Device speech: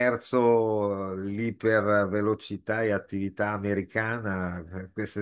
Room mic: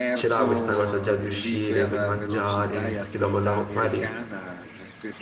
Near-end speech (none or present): present